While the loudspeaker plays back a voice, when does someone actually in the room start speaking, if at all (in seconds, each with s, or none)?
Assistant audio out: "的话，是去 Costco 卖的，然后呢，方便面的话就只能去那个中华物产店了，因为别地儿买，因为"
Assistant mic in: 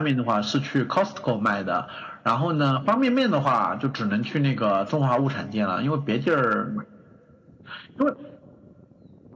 none